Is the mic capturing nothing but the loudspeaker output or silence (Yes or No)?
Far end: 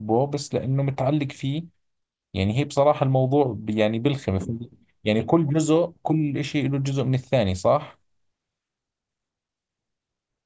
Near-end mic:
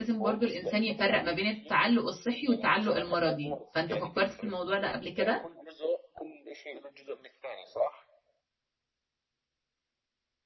No